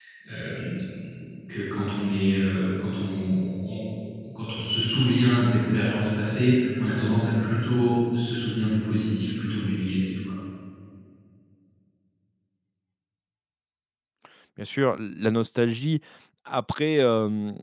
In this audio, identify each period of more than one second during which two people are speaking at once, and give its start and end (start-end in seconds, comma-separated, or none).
none